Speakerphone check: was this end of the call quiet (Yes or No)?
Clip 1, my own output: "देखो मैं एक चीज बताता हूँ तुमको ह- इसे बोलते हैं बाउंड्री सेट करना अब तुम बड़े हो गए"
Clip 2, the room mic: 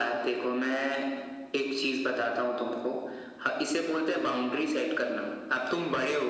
Yes